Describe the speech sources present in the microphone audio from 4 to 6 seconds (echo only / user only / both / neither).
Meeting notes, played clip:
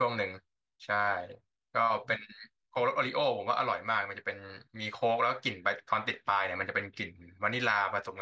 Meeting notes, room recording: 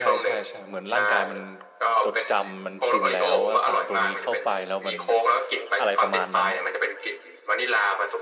both